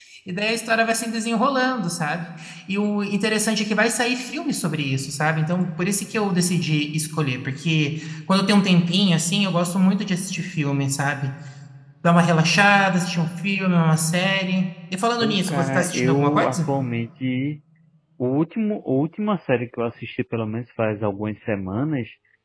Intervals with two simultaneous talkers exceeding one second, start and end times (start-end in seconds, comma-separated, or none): 15.2-16.7